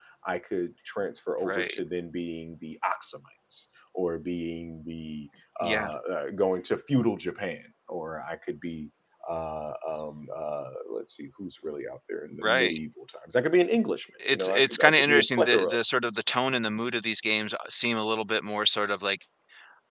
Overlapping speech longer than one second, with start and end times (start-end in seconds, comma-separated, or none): 14.3-15.8